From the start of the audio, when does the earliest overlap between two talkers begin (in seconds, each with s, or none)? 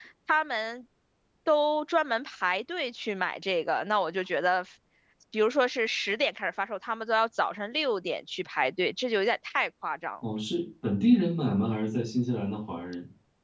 none